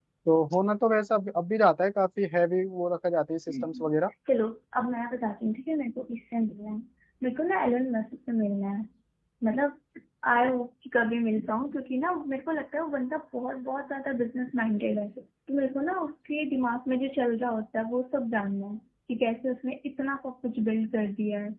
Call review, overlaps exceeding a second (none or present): none